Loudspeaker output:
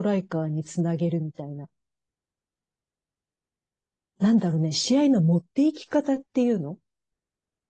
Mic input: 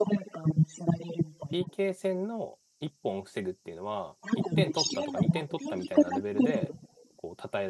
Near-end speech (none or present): present